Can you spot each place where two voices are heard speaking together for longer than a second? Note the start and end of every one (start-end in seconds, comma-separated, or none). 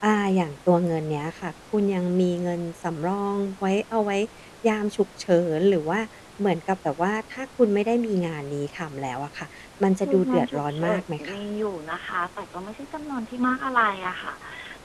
10.0-11.4